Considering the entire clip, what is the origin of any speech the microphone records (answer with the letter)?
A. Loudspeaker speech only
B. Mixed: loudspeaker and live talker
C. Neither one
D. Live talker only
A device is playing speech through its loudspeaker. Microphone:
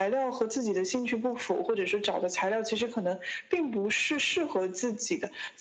A